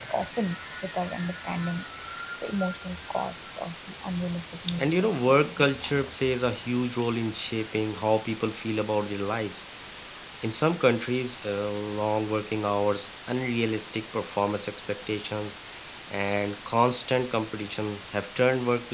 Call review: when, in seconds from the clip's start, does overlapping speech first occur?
5 s

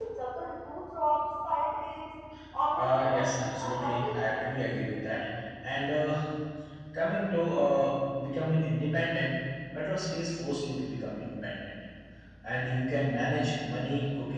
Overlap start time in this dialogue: 3 s

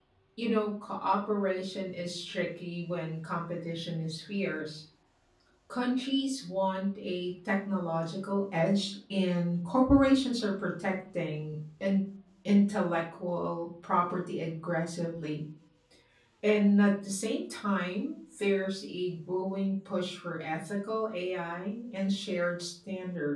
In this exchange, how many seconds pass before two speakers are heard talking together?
none

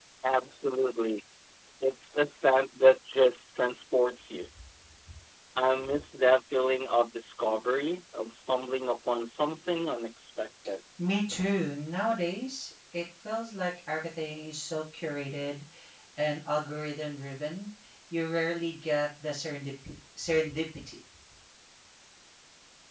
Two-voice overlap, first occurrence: none

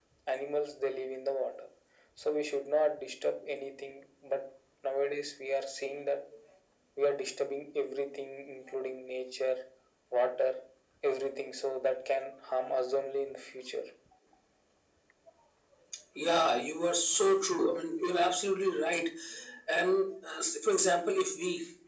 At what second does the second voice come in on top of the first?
none

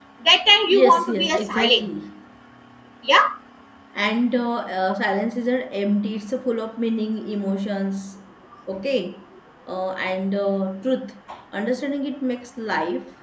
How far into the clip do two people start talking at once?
1 s

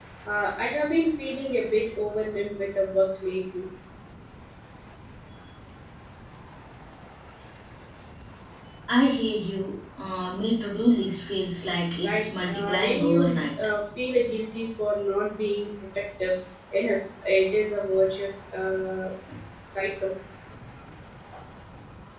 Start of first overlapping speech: 12 s

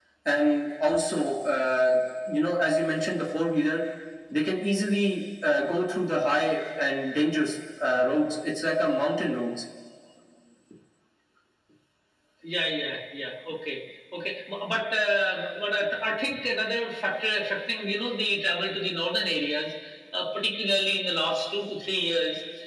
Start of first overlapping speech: none

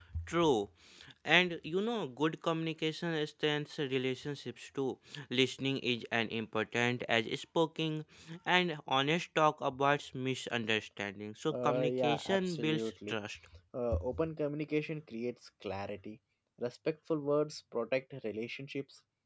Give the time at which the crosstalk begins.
12 s

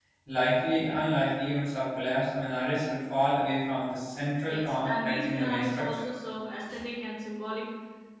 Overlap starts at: 4 s

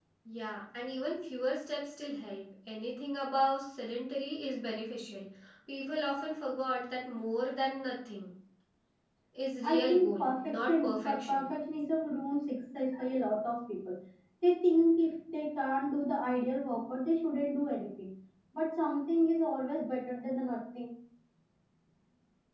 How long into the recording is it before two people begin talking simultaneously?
10 s

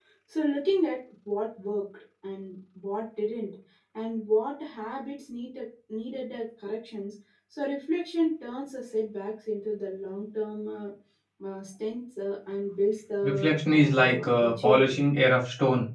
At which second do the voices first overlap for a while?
13 s

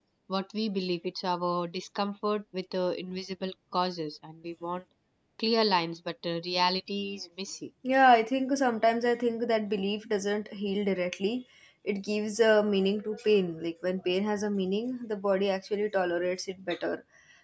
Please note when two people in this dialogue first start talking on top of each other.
none

